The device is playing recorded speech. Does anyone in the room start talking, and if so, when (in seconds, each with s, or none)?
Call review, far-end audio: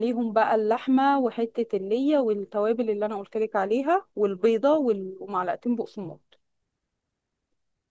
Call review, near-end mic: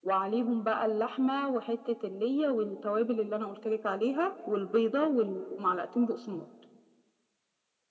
none